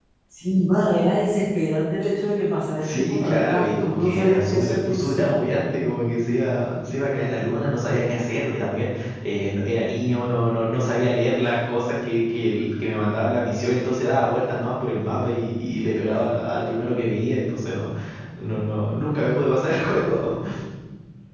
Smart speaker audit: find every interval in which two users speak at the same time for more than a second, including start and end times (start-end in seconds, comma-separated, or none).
2.8-5.5